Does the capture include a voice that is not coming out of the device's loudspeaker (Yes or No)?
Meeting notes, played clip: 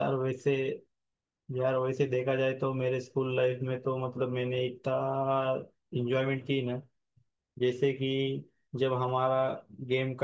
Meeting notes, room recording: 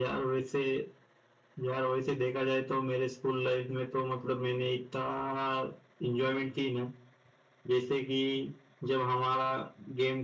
No